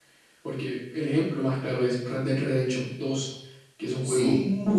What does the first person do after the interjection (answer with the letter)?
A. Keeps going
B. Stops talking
A